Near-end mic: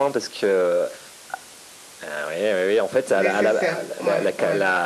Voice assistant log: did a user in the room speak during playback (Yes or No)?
Yes